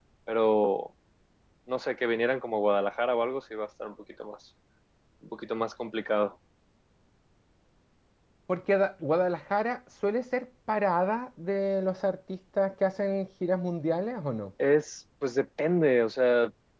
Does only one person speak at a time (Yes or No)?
Yes